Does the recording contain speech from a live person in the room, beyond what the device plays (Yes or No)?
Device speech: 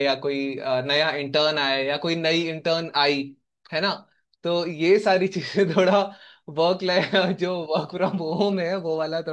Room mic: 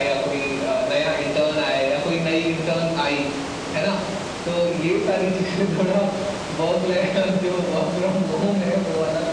No